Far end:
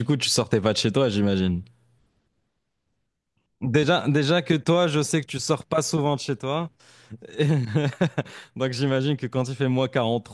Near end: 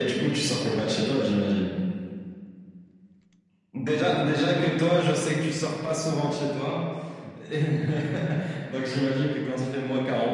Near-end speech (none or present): none